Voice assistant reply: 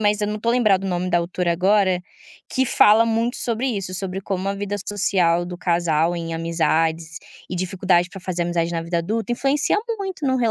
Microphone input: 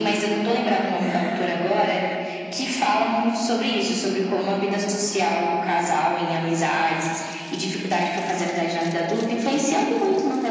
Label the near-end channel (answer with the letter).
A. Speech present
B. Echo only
B